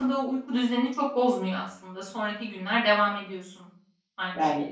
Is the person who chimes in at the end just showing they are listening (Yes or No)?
No